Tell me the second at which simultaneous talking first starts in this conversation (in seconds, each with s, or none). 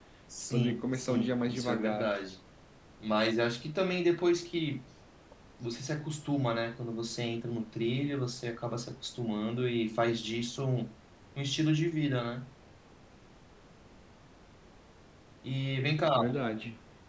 0.5 s